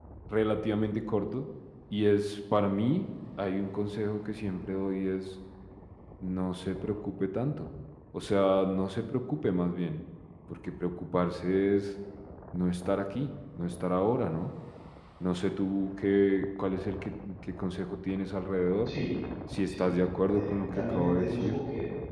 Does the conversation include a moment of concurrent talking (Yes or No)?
Yes